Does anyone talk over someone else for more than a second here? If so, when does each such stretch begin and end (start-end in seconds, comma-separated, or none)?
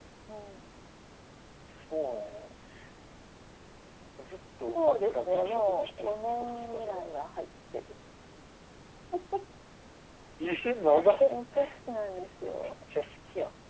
4.7-7.0